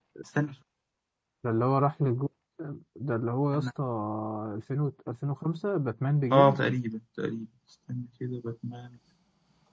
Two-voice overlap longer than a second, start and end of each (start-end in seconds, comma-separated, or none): none